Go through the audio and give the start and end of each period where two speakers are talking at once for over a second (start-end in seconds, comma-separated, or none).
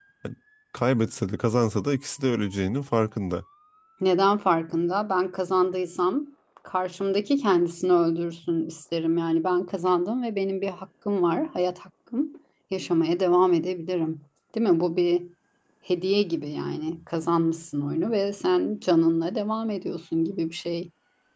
none